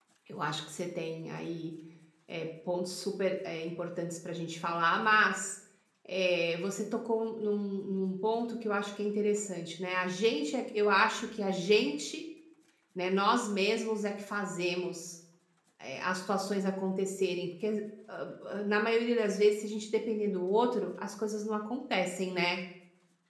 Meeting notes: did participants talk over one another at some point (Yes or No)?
No